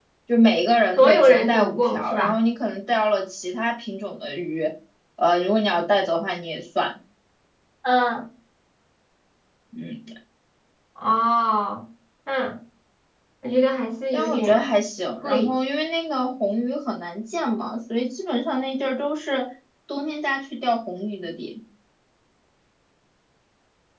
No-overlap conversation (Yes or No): No